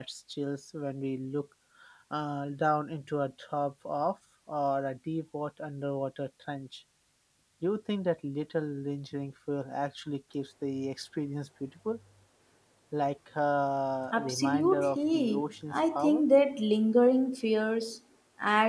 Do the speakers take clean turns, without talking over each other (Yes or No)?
No